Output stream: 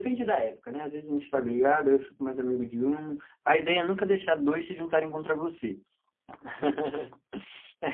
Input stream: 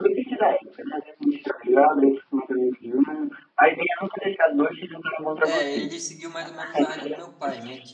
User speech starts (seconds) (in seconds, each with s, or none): 5.4 s